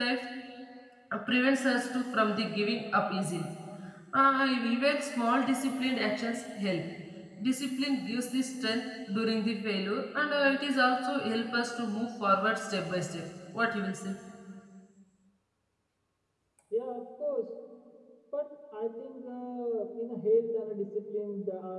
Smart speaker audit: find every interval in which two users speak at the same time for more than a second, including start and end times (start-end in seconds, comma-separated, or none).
none